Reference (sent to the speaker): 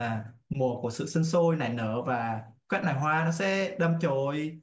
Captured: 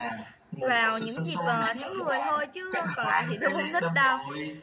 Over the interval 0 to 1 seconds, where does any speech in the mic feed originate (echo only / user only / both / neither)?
both